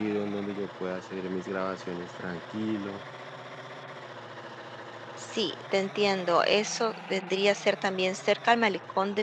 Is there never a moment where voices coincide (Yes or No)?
Yes